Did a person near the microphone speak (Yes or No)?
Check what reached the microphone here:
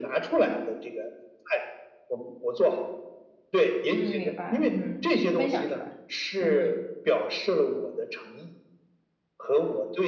Yes